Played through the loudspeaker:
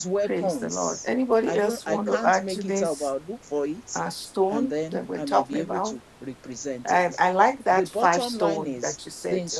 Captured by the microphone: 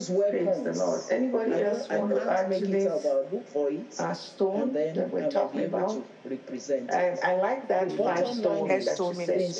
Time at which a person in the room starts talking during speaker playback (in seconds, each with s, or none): 7.9 s